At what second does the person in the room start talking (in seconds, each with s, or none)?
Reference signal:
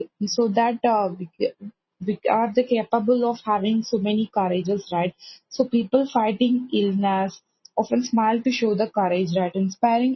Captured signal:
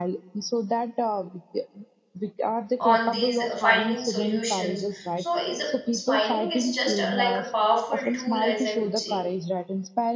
2.8 s